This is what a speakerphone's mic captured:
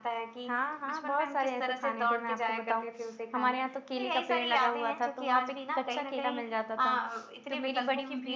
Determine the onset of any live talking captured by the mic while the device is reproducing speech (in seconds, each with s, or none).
0.4 s